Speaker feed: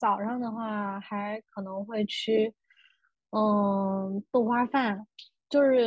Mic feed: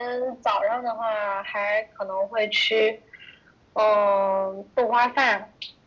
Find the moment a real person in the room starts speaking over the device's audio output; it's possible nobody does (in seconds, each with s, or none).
none